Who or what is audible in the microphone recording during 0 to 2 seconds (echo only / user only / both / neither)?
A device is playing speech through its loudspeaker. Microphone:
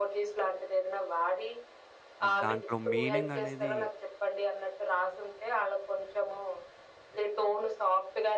echo only